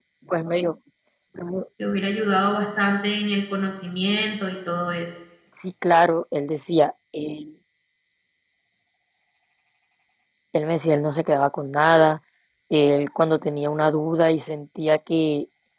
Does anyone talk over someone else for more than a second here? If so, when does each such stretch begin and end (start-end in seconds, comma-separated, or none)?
none